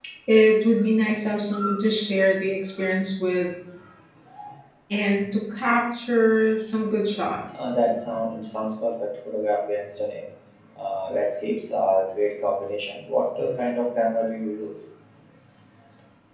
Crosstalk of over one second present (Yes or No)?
No